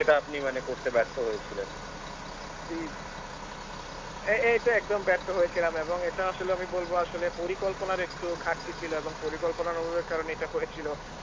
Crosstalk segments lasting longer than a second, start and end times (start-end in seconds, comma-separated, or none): none